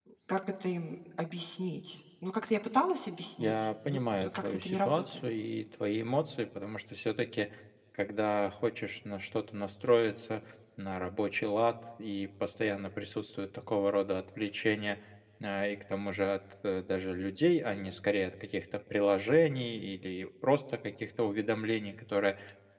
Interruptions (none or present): present